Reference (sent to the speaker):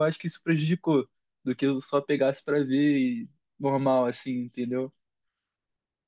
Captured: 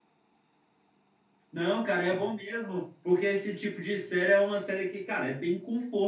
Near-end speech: present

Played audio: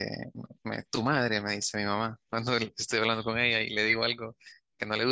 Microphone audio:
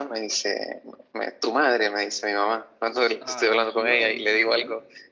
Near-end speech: present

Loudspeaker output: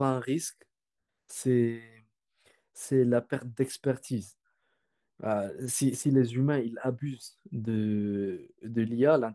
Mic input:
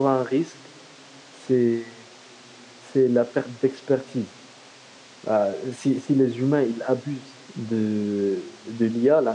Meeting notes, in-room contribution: none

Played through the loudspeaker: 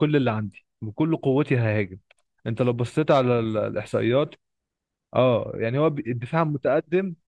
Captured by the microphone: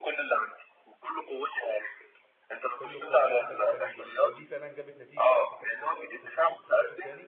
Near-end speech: present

